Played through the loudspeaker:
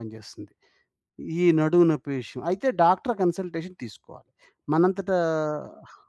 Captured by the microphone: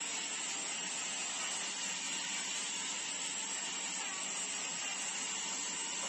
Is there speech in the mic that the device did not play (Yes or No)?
No